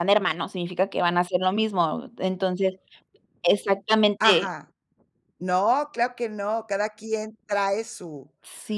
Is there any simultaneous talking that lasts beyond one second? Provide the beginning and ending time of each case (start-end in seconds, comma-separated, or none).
none